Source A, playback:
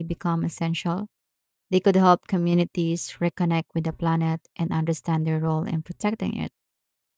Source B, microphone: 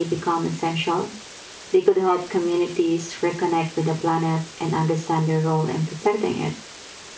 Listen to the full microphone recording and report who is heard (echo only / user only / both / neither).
echo only